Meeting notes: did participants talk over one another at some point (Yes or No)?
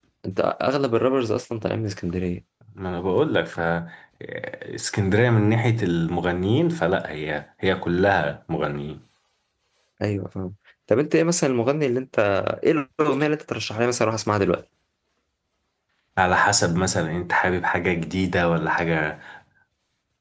No